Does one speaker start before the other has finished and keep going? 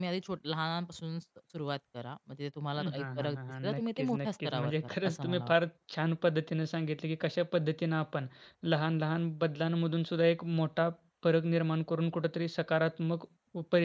Yes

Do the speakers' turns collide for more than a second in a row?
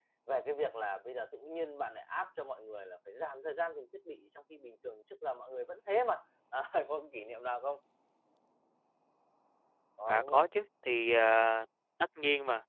No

